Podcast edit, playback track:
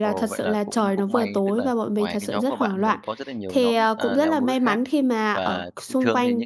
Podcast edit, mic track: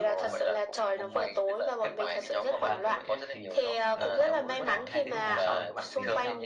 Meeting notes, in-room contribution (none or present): present